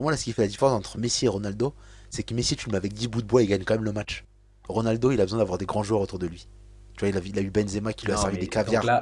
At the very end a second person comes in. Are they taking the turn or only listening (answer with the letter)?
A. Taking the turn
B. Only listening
A